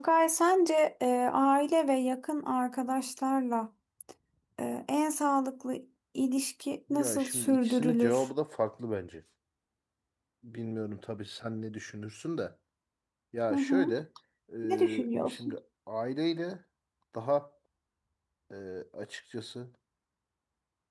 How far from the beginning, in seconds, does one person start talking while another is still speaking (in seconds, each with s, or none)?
6.9 s